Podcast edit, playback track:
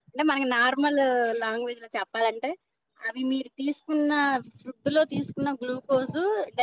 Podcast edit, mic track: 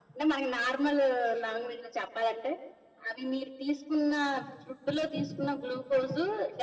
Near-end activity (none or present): none